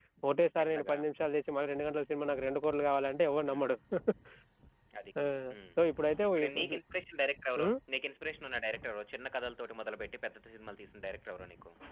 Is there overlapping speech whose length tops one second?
No

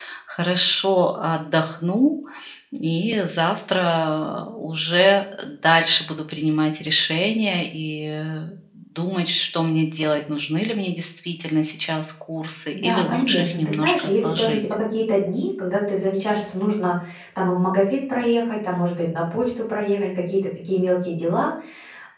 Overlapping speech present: Yes, from 12.7 s

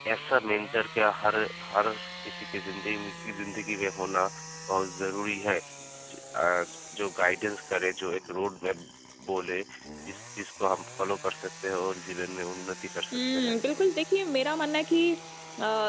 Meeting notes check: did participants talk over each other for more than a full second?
No

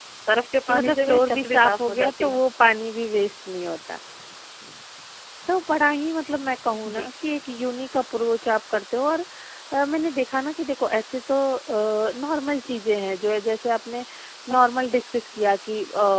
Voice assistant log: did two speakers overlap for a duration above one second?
Yes, from 0.7 s

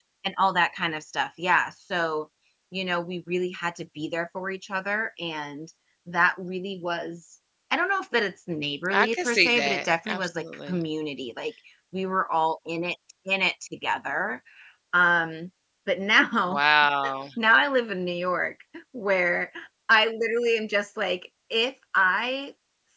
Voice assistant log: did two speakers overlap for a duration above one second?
Yes, from 8.9 s

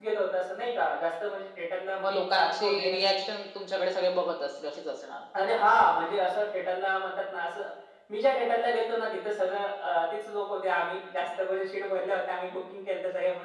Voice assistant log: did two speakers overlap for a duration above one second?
Yes, from 2.0 s

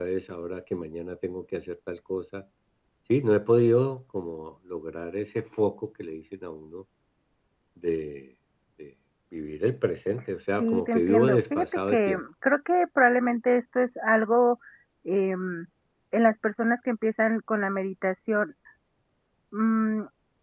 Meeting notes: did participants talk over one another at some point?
Yes, from 10.6 s

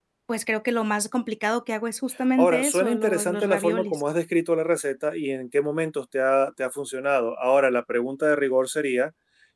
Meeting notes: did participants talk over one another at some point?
Yes, from 2.4 s

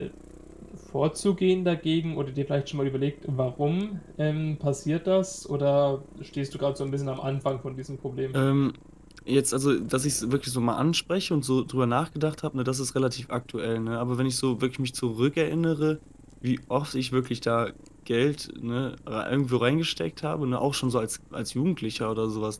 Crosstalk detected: No

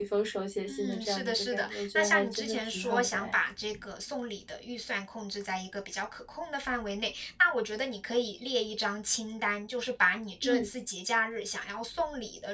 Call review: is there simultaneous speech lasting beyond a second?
Yes, from 0.7 s

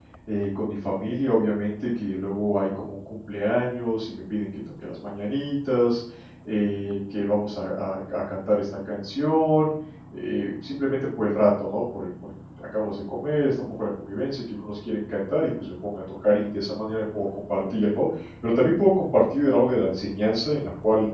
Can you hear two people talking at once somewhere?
No

